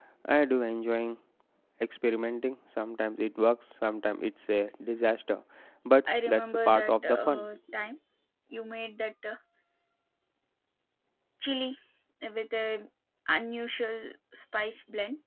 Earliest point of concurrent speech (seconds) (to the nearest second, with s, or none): 6 s